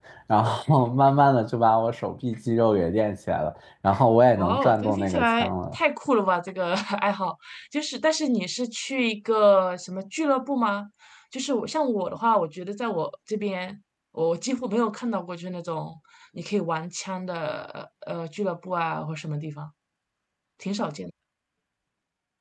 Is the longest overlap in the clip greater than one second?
Yes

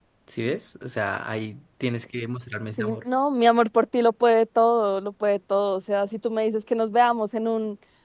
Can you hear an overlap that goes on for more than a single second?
No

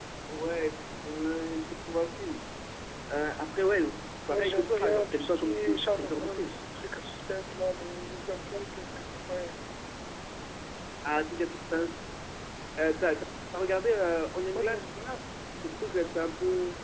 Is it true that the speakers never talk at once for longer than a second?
No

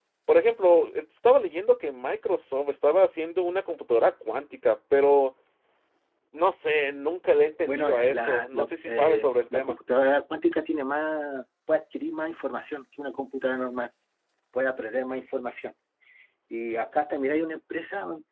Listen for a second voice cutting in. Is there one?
Yes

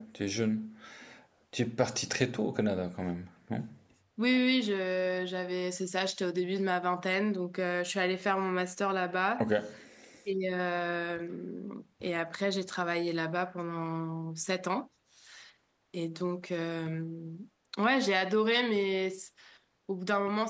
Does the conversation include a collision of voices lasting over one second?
No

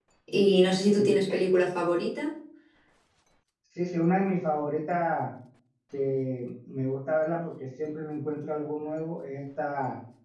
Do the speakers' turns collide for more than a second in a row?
No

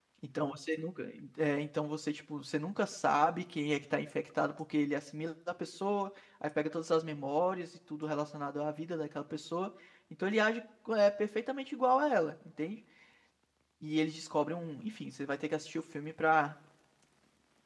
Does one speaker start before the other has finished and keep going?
No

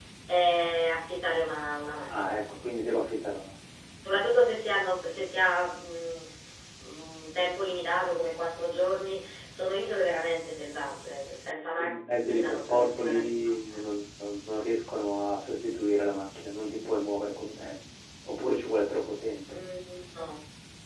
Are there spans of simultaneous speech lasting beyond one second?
Yes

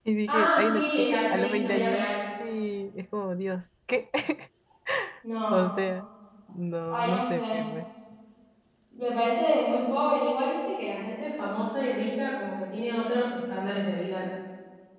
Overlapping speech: Yes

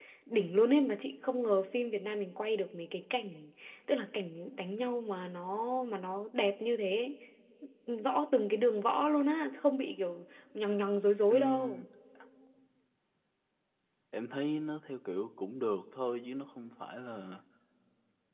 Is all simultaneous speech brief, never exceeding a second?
Yes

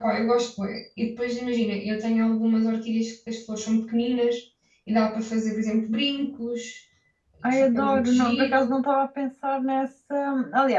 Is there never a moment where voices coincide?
No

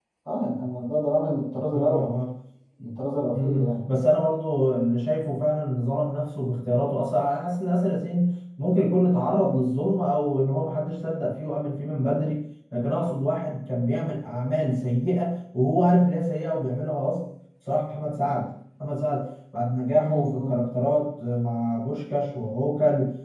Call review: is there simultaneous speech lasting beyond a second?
No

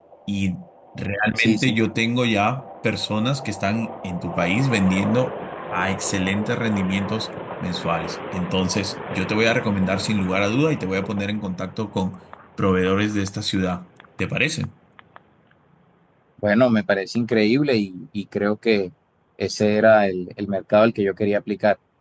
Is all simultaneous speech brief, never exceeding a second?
Yes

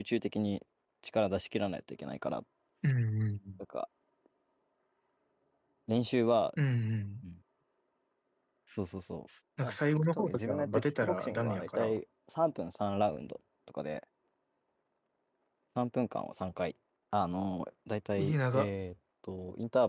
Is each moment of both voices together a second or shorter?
No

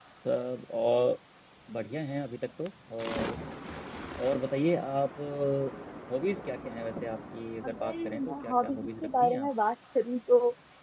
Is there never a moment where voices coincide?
No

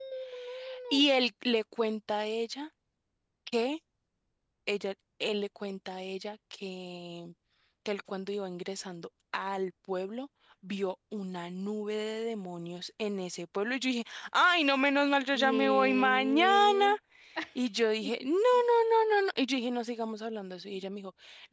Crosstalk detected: Yes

